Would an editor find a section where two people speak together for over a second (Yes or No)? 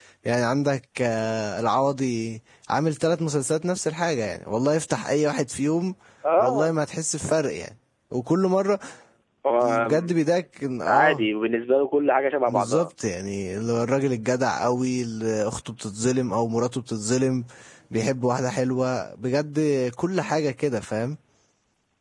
No